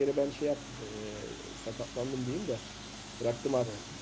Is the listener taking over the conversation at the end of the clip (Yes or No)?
No